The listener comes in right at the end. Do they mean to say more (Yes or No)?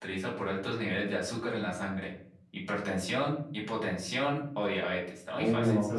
Yes